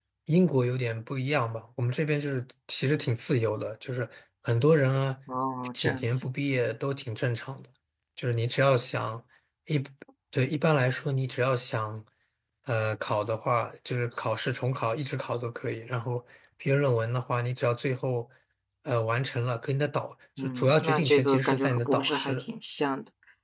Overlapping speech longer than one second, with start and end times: 20.4-22.4

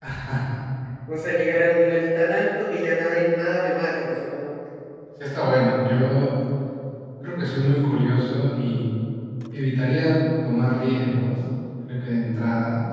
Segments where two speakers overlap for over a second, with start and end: none

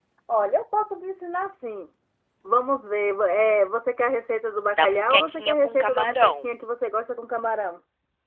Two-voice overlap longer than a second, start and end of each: 4.8-6.3

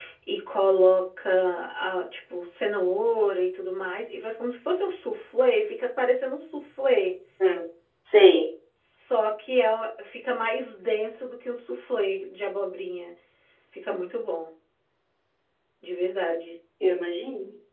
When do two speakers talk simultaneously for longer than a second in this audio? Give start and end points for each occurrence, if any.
none

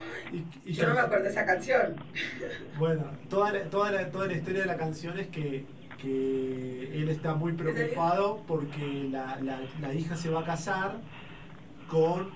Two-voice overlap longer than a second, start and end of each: none

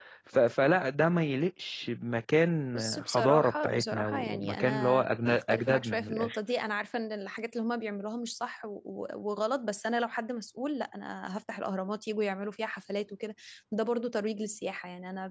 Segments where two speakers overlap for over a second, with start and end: 2.7-6.4

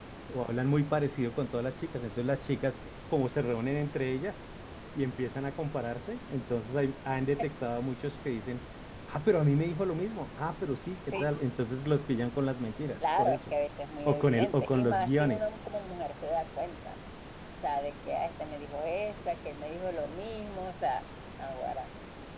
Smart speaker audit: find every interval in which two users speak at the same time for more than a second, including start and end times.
14.0-15.6

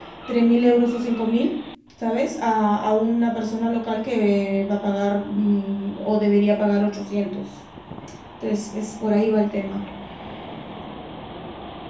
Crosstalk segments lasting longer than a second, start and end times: none

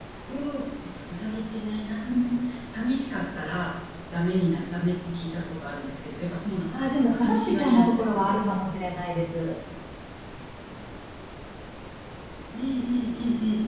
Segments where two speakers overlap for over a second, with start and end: 6.7-8.3

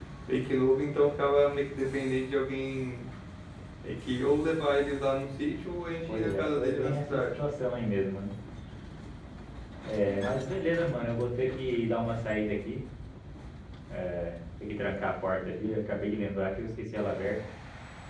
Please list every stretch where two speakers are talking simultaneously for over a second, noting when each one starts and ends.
6.1-7.4

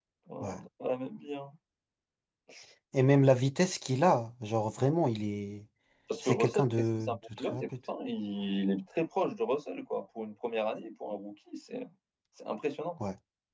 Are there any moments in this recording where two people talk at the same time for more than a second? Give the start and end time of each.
6.2-7.6

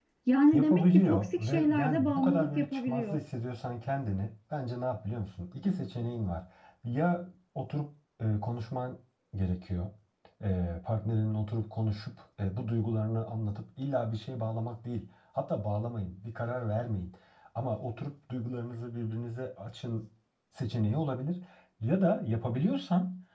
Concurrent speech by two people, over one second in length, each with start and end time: 0.5-3.2

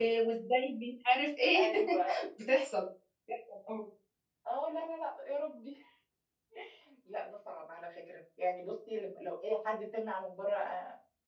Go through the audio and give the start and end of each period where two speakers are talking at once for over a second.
none

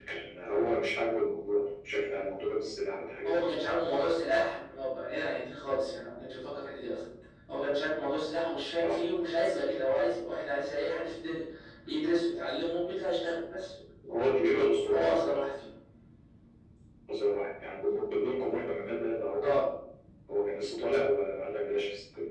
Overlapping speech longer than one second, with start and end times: none

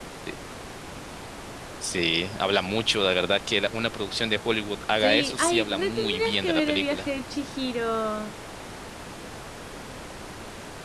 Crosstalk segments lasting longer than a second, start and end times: 5.0-7.1

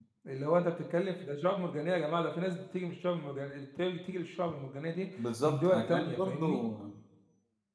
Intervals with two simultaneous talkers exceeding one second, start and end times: 5.4-6.6

